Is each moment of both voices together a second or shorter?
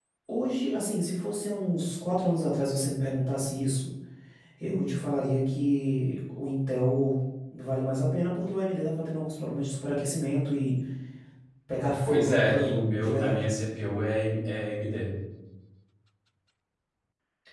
No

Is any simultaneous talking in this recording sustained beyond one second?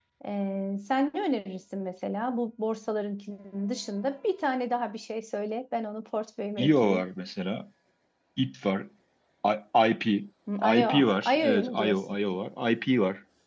Yes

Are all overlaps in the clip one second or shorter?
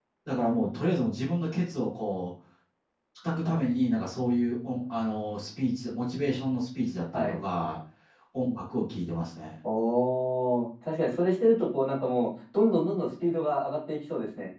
Yes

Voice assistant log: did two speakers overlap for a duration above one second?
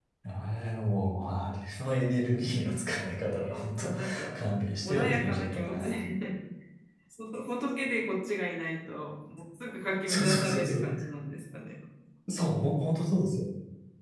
Yes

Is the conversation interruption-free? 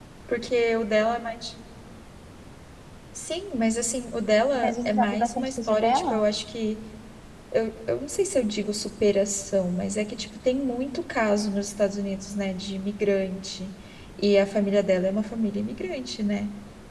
No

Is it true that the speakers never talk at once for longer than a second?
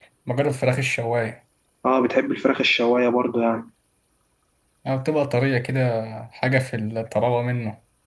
Yes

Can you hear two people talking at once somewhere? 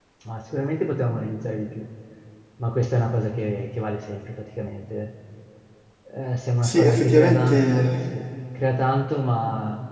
Yes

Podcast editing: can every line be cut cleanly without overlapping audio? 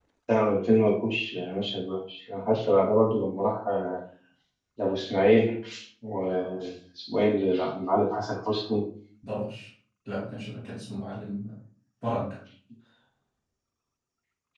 Yes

